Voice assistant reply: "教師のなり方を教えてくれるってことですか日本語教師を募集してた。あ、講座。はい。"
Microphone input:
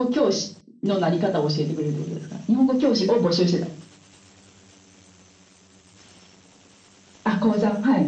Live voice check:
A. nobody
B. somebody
A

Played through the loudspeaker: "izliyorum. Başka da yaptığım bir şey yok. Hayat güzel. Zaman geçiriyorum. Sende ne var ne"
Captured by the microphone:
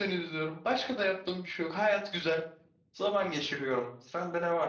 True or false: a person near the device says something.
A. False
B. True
A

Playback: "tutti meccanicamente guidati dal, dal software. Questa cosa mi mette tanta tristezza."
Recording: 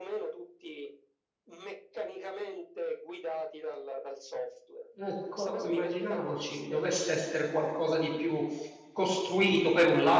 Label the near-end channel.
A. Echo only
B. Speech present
B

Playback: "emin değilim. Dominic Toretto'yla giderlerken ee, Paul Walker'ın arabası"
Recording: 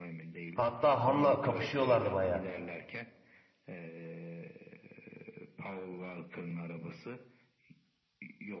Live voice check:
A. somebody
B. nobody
A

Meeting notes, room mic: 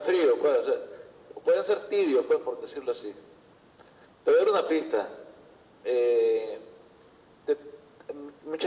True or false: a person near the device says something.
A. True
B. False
B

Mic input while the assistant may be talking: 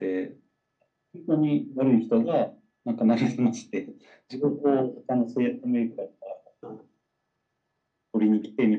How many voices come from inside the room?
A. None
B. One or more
A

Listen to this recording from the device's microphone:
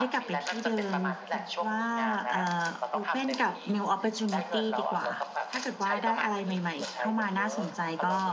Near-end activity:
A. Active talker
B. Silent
A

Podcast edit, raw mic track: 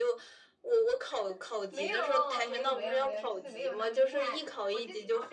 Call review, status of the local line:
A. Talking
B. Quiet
A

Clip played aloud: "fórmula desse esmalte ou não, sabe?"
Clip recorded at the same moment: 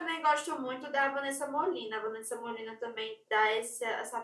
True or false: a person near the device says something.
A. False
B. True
B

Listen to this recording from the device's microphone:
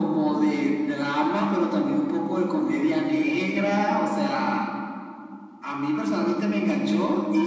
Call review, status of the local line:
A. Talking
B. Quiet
B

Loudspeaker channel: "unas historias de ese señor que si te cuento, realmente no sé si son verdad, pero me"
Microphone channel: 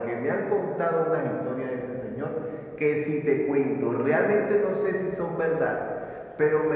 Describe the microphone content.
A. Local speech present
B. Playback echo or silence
B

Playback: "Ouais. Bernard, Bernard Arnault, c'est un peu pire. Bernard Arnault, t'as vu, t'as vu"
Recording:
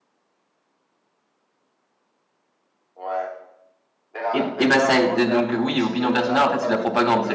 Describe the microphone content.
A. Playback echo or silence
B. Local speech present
B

